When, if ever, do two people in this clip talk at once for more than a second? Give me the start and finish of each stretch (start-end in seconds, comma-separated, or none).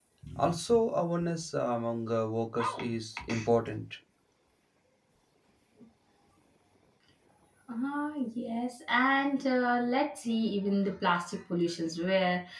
none